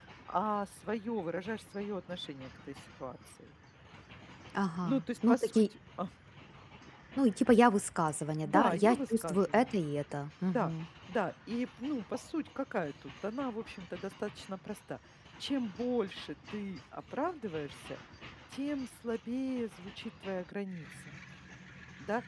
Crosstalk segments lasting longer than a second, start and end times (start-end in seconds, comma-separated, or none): 8.4-9.7